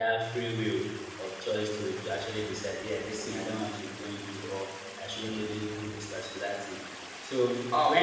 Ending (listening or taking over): taking over